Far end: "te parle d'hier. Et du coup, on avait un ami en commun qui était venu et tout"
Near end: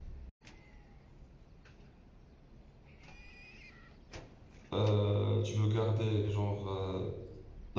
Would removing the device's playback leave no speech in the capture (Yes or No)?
No